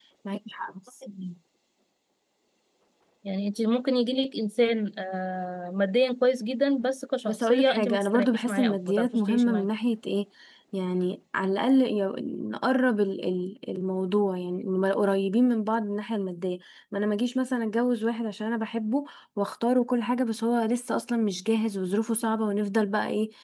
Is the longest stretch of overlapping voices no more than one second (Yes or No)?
No